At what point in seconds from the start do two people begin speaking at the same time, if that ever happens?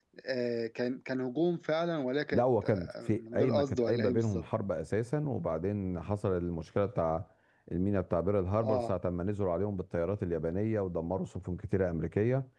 2.3 s

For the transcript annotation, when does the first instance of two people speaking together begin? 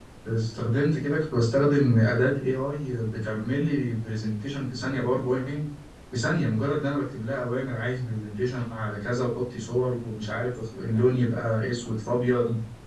none

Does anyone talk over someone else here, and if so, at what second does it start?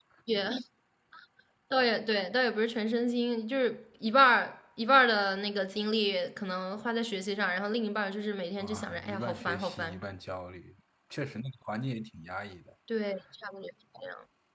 8.6 s

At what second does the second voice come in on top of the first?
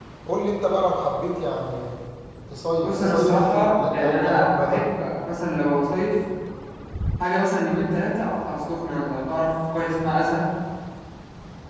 2.8 s

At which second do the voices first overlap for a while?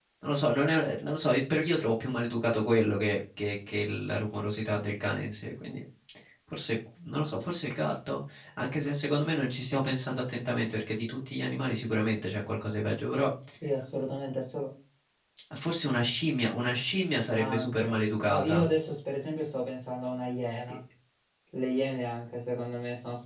17.4 s

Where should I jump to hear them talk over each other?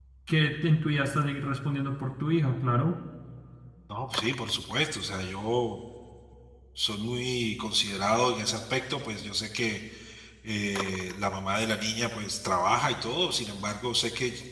none

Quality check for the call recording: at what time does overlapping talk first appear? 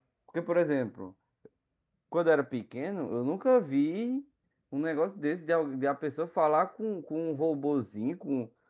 none

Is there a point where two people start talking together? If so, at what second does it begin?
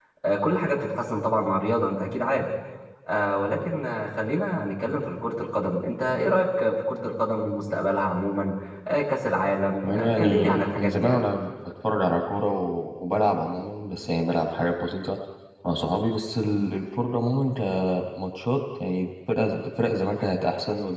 9.8 s

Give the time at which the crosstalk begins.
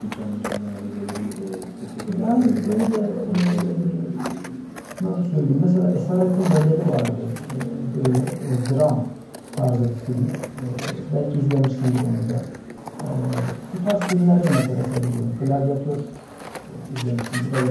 2.1 s

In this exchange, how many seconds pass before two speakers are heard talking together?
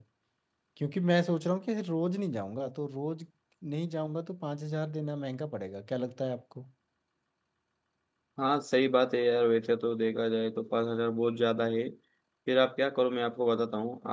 none

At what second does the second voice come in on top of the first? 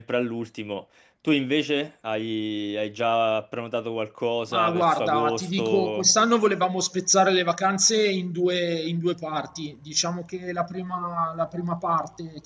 4.5 s

